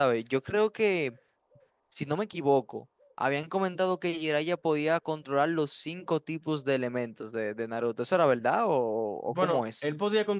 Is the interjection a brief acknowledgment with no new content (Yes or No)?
No